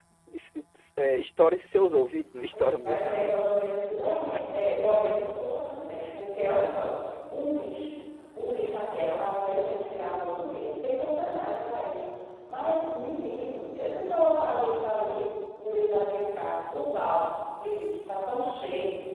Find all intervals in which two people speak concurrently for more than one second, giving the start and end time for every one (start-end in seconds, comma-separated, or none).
none